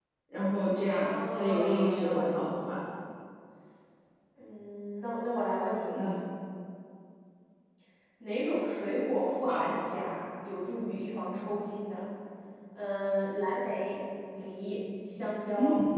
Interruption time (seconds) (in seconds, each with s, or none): 0.9 s